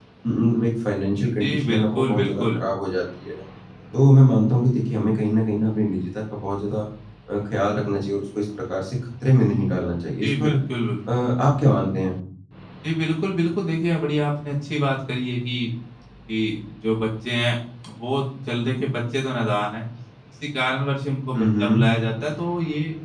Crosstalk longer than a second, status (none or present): present